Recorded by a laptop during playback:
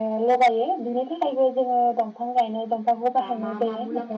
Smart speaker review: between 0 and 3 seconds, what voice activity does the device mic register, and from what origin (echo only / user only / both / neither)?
echo only